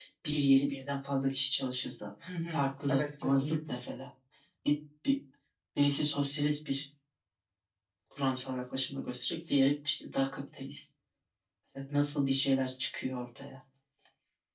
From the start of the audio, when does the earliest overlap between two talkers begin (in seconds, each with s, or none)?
2.2 s